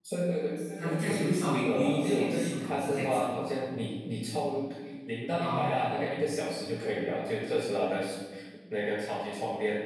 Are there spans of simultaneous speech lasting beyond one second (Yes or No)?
Yes